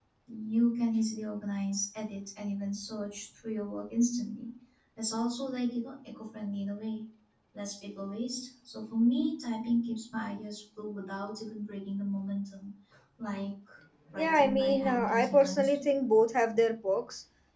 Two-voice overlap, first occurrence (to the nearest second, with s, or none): 14 s